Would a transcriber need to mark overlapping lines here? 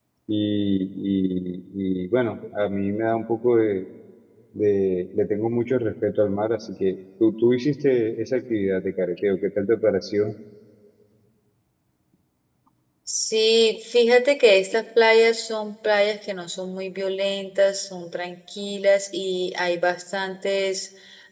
No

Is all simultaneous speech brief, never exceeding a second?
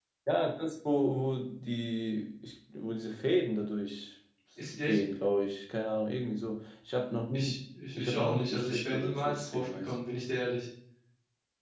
No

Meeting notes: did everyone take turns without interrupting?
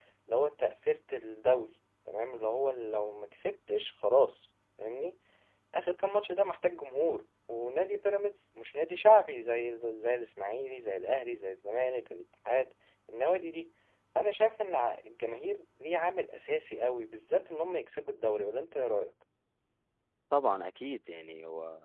Yes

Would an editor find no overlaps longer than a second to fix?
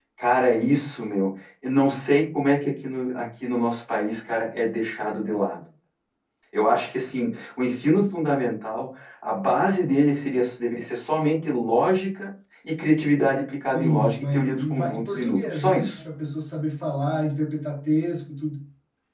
No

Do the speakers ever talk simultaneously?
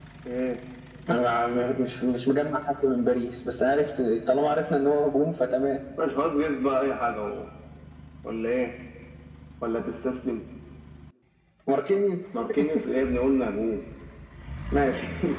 No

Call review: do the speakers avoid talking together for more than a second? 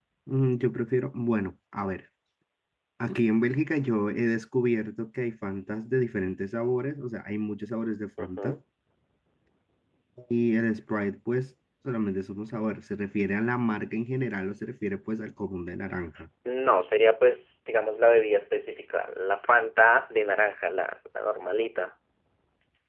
Yes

